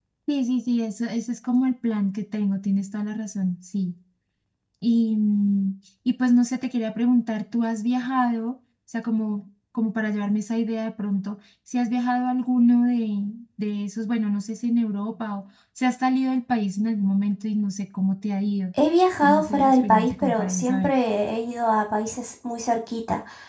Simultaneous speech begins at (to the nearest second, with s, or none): 19 s